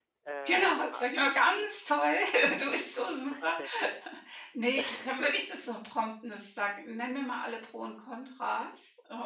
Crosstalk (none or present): present